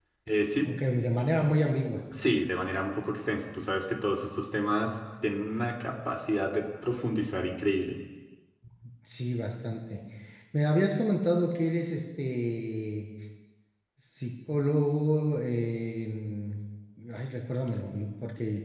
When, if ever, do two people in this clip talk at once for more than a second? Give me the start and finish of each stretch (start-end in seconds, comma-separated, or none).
none